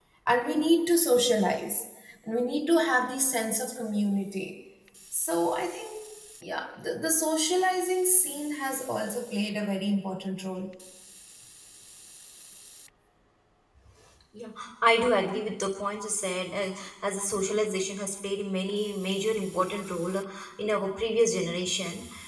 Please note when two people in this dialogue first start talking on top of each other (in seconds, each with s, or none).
none